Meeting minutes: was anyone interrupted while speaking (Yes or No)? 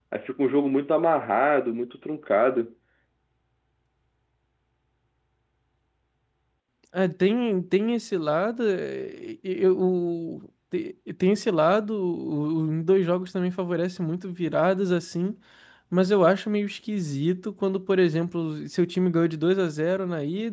No